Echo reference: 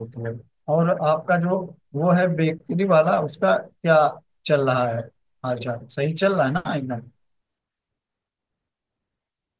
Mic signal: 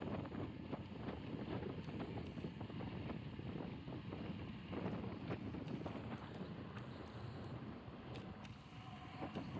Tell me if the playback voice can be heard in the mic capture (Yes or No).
No